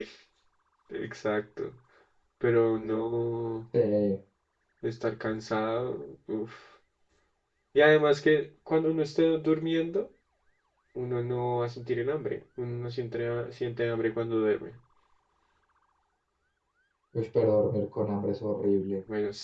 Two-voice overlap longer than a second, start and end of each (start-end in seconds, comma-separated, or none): none